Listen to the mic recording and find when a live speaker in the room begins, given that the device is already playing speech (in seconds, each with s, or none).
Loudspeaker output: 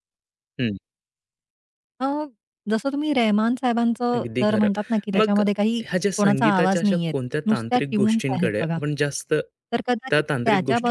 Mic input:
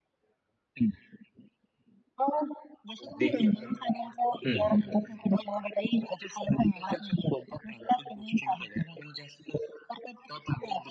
3.0 s